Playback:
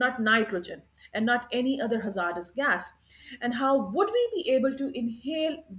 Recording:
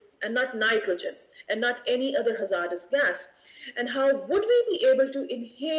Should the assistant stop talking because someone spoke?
No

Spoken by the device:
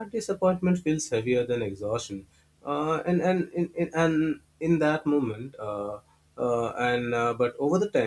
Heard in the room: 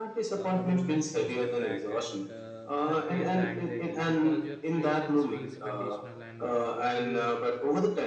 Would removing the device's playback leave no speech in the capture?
No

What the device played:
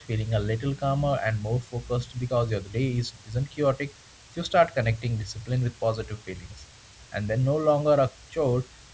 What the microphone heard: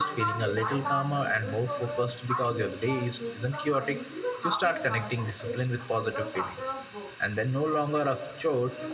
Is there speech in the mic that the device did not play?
Yes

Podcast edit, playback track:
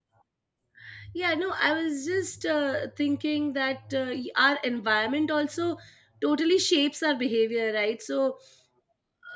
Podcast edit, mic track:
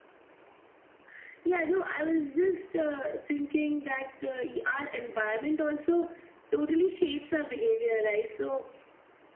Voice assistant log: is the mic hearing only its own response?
Yes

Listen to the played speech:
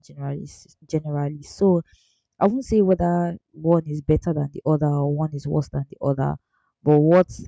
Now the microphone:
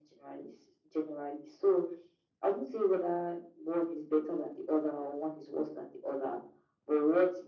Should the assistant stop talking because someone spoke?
No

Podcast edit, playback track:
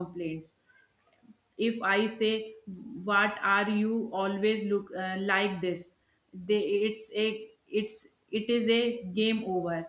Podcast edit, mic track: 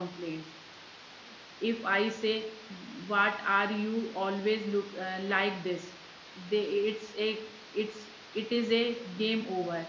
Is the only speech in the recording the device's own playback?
Yes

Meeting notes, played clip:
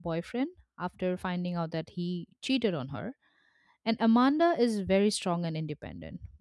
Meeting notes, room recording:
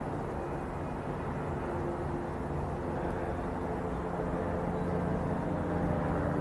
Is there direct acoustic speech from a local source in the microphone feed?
No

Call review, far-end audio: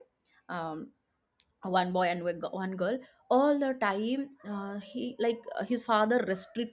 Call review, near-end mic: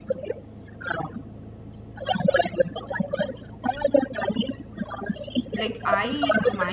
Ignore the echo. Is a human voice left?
Yes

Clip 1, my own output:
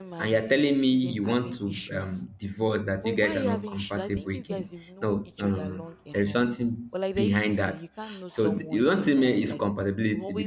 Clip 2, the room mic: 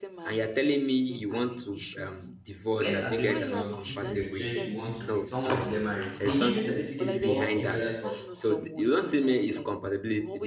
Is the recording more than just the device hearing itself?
Yes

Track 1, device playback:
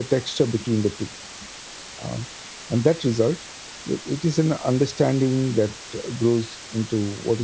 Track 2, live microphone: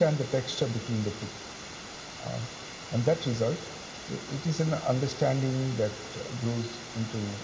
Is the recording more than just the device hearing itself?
No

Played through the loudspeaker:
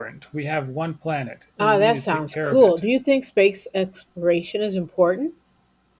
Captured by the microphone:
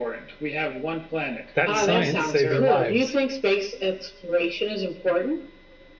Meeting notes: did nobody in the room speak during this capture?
No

